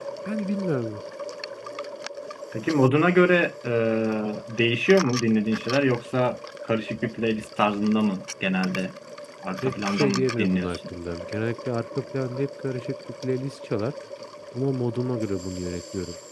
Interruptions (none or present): present